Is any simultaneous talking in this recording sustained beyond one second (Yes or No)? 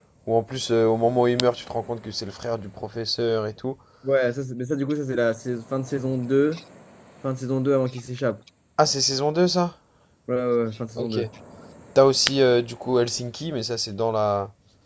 No